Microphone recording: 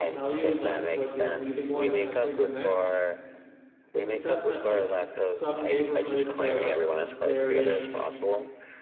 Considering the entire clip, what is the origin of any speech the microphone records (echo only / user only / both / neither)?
both